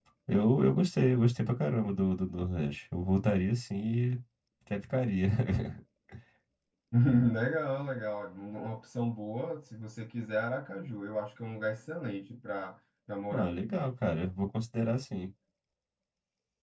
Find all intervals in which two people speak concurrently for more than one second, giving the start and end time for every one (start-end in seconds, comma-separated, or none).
none